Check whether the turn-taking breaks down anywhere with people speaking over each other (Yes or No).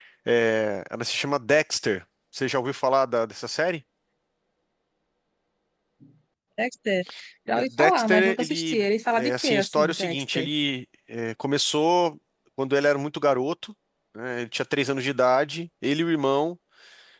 Yes